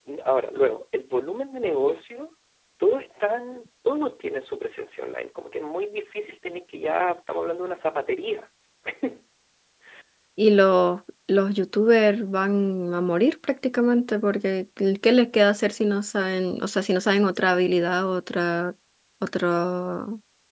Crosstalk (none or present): none